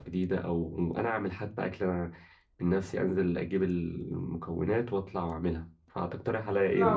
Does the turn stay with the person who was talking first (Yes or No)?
No